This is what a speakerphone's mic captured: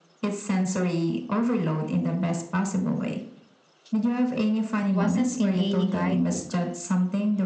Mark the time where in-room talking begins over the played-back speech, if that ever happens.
4.9 s

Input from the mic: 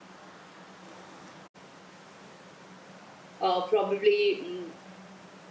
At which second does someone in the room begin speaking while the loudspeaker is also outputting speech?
3.4 s

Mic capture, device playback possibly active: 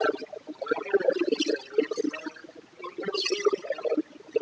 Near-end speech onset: none

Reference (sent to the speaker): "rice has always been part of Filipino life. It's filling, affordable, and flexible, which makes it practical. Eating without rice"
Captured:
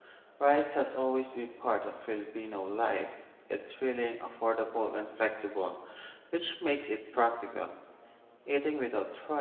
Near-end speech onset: none

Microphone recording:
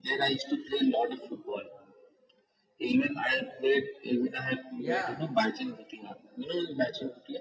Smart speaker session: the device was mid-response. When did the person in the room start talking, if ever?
4.8 s

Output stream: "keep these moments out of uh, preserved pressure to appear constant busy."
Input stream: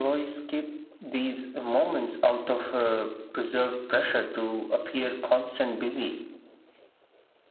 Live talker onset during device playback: none

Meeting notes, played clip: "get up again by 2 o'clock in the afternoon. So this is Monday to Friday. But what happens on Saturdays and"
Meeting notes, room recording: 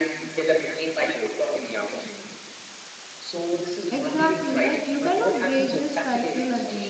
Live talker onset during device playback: 3.9 s

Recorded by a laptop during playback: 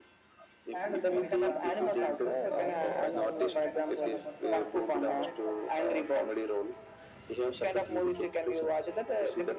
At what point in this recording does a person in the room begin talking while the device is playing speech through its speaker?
0.7 s

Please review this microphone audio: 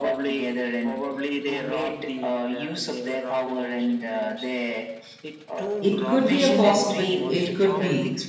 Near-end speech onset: 5.8 s

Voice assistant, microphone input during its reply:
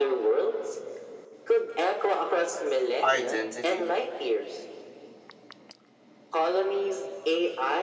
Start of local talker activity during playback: 3.0 s

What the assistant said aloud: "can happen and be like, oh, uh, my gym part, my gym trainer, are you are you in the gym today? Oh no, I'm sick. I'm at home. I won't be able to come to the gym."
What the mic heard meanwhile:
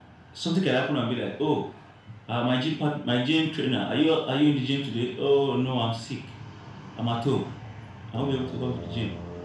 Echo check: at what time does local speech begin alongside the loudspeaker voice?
none

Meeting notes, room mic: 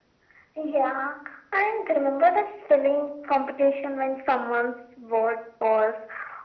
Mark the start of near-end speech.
none

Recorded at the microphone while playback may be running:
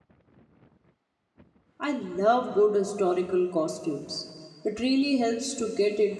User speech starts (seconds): 1.8 s

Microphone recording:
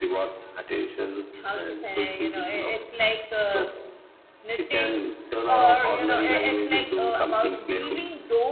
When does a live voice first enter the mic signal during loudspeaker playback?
1.3 s

